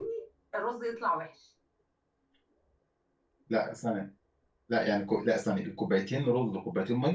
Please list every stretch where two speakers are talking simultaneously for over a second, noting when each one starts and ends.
none

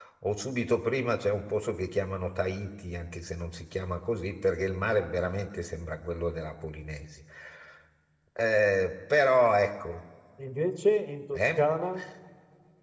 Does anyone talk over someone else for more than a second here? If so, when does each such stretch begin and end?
none

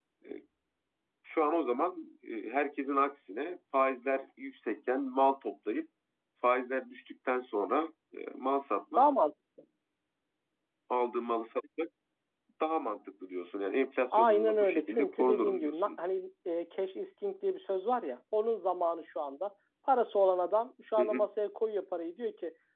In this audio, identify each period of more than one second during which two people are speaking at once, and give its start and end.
14.2-15.9

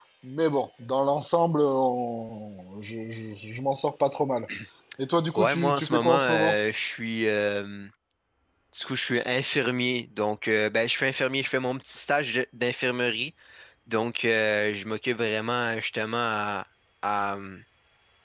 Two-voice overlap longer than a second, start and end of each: 5.3-6.5

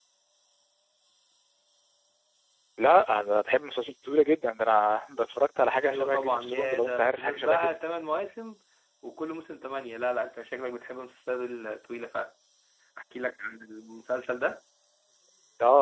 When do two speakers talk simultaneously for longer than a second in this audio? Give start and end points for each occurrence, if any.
5.8-7.8

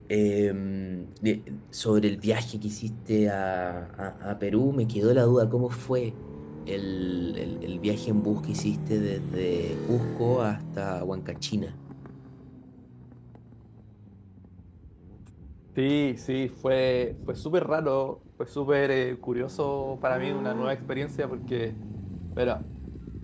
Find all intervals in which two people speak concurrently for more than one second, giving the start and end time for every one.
none

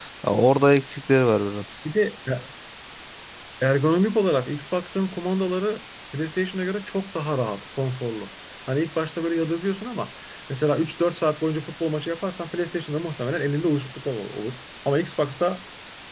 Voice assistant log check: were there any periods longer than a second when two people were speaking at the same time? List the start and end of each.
none

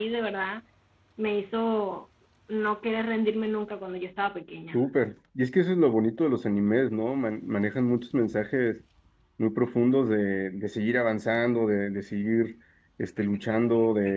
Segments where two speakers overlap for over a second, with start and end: none

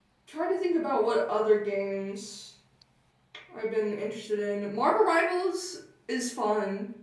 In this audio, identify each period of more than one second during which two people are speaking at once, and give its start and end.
none

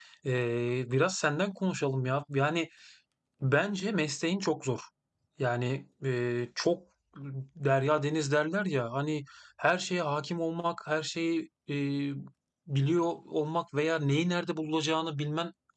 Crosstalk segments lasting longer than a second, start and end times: none

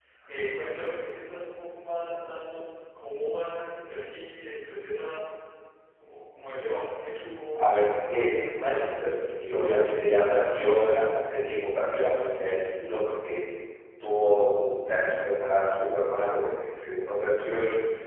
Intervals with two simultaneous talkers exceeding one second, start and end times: 7.5-8.9

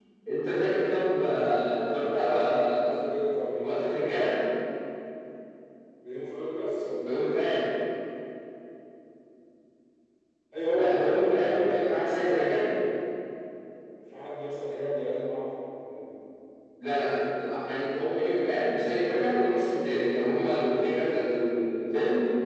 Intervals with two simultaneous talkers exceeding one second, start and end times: 10.7-12.7

